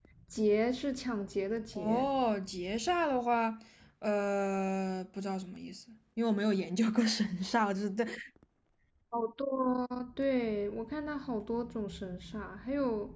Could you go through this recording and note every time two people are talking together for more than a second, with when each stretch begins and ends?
none

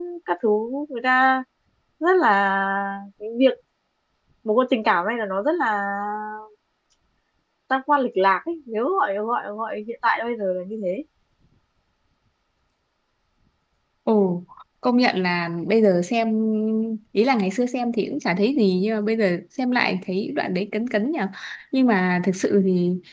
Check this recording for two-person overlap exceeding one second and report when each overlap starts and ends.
none

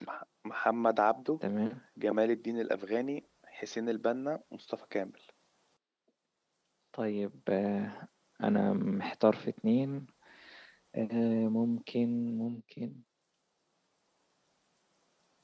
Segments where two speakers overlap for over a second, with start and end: none

